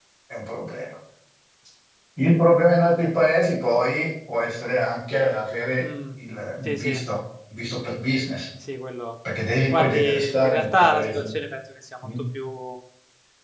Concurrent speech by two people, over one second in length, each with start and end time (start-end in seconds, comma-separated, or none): 9.7-11.4